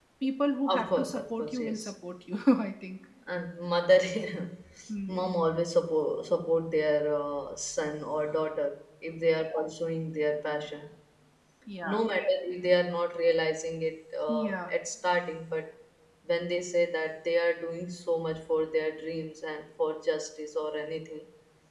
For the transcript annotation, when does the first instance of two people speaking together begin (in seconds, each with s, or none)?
0.7 s